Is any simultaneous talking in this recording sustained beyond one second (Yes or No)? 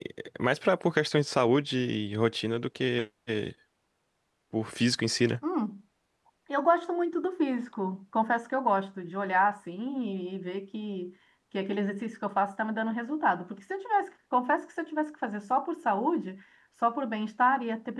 No